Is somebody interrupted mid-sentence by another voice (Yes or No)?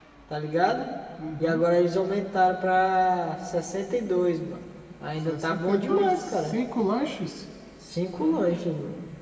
Yes